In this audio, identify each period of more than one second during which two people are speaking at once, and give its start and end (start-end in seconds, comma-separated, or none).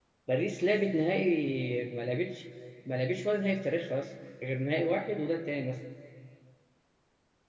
none